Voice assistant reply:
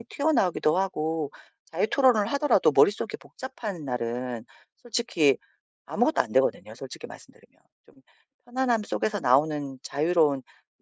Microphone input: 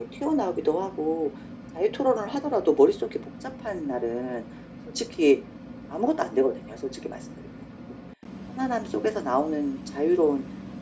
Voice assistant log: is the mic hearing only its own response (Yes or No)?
Yes